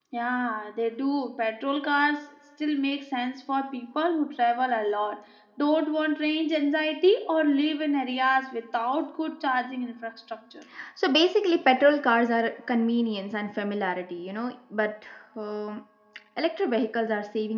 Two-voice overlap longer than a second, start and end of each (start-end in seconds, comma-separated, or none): none